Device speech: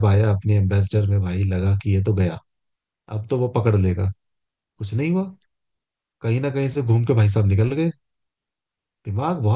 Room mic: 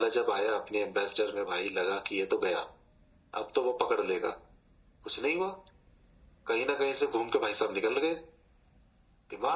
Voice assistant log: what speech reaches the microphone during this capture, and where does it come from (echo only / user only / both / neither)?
echo only